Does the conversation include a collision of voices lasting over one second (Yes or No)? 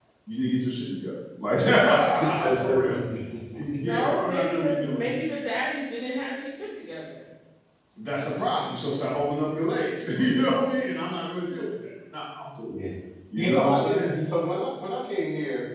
Yes